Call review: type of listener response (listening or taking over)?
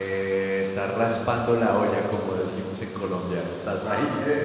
taking over